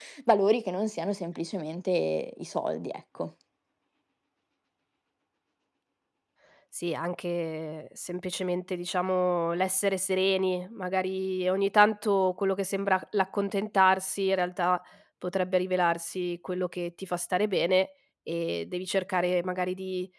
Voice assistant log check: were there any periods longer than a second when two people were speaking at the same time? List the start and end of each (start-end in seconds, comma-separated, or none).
none